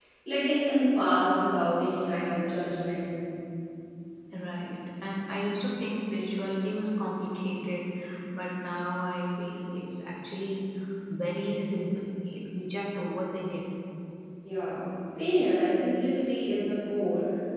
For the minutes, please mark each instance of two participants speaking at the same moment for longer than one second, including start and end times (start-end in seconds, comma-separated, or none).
none